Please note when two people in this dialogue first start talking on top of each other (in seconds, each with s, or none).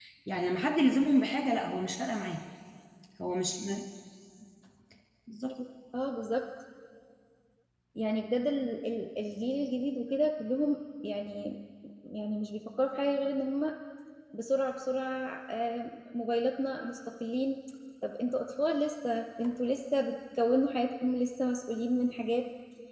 none